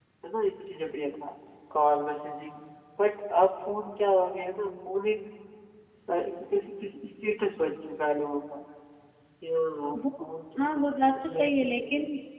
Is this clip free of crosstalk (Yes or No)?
No